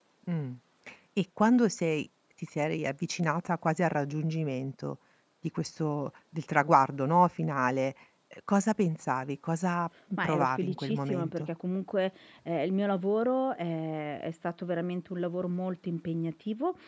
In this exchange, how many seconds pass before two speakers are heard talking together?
10.2 s

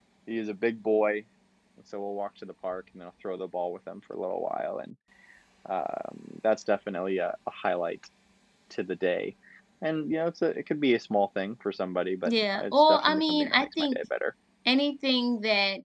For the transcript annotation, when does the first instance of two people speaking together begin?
12.2 s

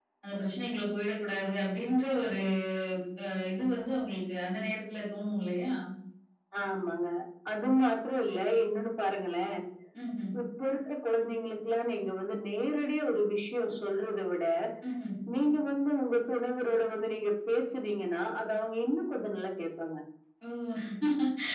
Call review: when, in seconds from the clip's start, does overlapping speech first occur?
none

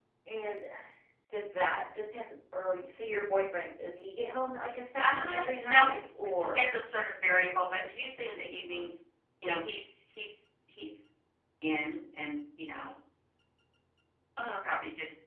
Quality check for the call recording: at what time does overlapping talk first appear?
5.0 s

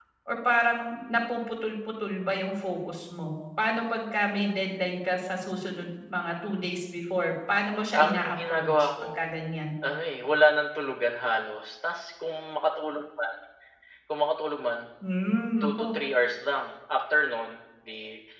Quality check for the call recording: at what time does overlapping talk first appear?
8.0 s

